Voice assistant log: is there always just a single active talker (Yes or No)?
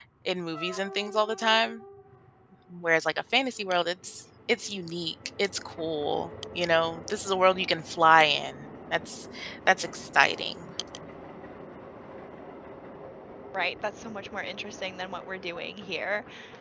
Yes